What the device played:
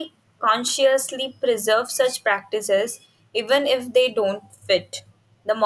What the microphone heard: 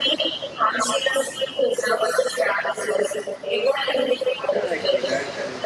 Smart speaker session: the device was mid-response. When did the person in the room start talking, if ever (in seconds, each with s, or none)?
4.5 s